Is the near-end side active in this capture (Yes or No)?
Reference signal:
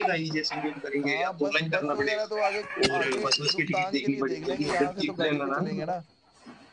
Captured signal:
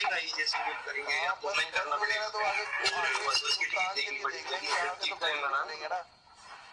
No